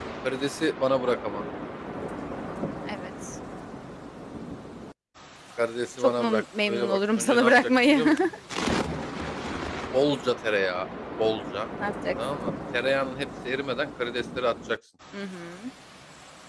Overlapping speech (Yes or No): Yes